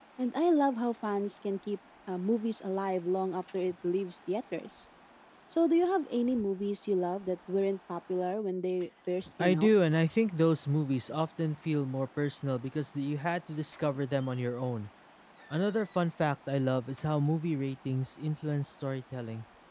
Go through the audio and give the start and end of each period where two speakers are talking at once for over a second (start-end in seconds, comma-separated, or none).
none